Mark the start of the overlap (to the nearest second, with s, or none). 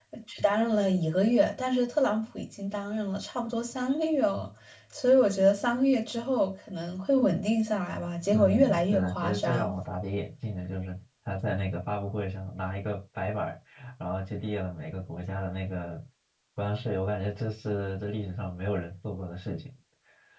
8 s